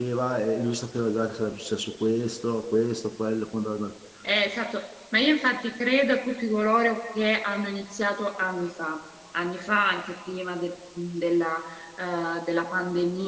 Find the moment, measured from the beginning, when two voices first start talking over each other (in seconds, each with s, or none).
none